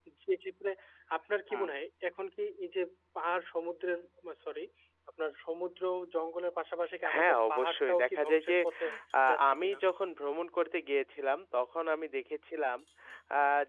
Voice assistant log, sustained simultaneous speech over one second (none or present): present